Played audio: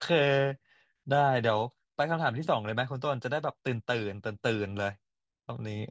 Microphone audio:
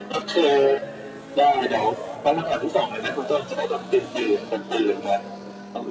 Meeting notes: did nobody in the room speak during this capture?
Yes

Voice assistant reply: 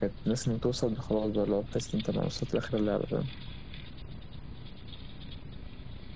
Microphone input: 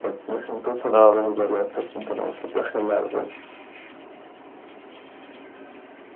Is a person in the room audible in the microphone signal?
Yes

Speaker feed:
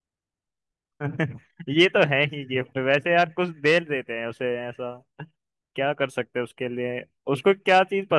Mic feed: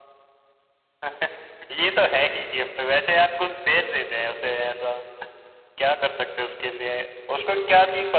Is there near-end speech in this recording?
No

